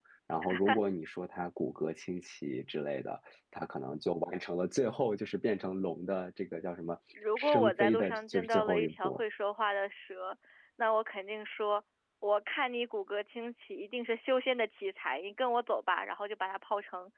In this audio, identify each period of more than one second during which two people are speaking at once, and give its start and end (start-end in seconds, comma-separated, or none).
7.4-9.2